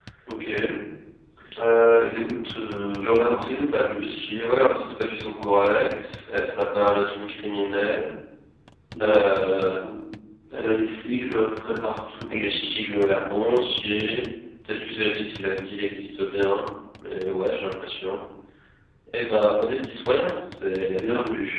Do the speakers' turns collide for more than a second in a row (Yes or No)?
Yes